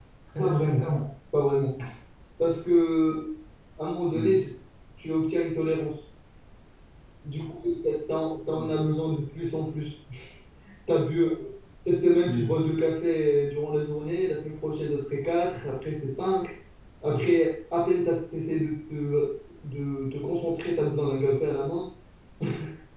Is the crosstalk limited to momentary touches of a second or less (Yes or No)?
Yes